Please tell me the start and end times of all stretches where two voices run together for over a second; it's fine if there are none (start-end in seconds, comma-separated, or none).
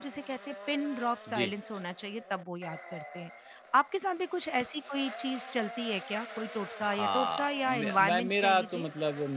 6.8-8.9